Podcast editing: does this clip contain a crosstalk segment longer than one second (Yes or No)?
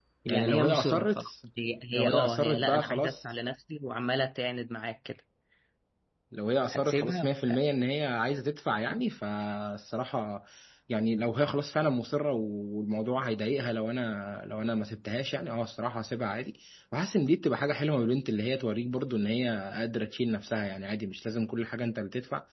Yes